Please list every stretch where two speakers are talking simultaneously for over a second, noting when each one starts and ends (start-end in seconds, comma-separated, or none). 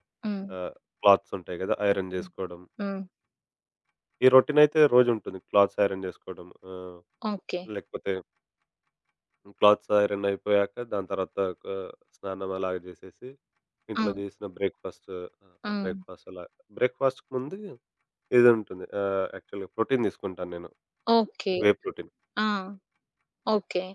none